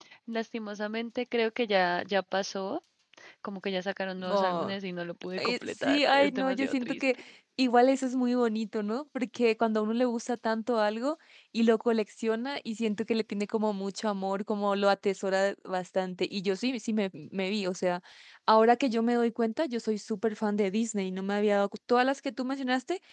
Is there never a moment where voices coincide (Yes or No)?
No